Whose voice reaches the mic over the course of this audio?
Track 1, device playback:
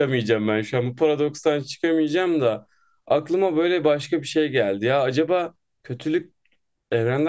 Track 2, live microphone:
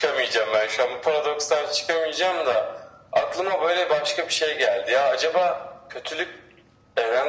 echo only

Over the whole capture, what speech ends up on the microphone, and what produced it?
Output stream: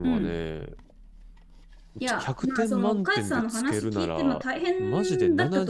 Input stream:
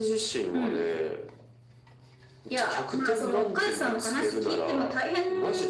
echo only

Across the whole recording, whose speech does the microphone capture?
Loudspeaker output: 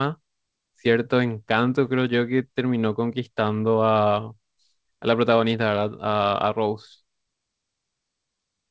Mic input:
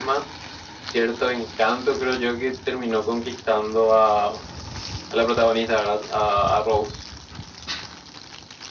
echo only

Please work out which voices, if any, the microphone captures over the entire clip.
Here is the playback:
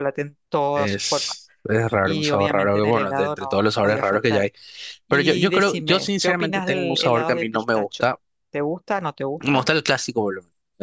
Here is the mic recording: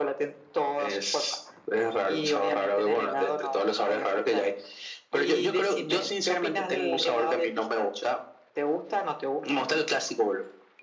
echo only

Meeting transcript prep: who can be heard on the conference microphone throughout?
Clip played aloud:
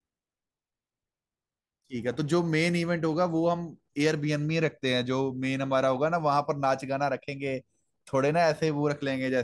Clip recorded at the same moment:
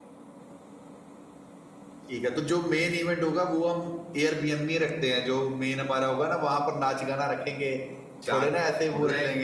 both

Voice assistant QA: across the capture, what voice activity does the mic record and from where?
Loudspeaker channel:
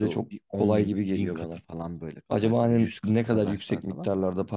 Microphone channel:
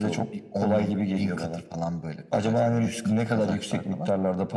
echo only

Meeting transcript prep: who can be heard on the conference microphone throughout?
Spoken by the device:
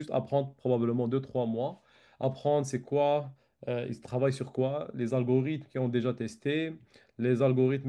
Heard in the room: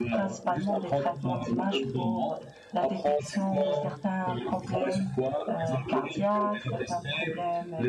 both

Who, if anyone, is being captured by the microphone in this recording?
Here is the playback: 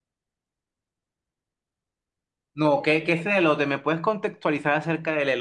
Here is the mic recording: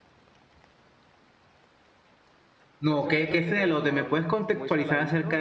both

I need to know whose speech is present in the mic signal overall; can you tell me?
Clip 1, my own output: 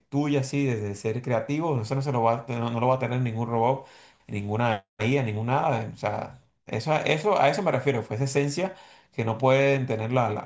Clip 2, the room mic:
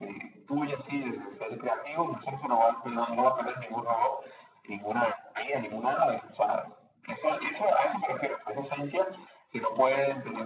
echo only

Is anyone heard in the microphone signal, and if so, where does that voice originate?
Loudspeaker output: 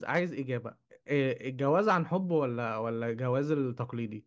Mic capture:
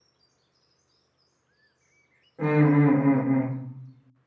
user only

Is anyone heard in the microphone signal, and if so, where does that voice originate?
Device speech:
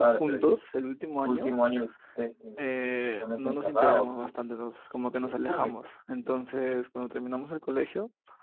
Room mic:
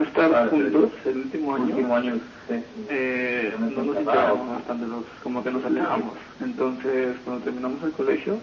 echo only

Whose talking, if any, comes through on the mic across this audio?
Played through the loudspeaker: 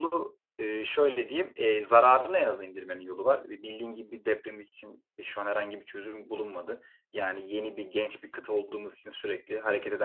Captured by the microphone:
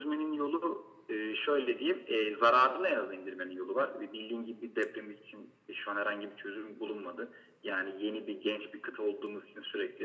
echo only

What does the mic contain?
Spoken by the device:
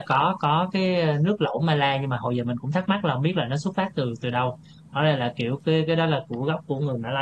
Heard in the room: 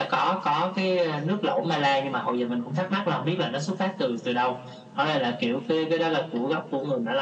echo only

